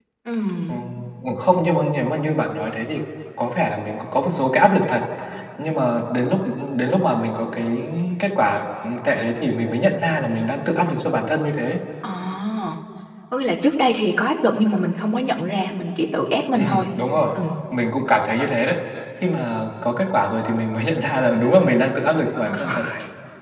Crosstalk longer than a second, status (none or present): none